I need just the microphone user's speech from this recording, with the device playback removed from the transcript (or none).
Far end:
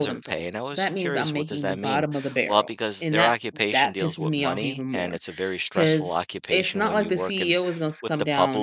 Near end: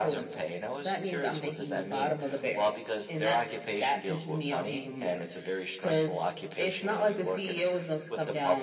none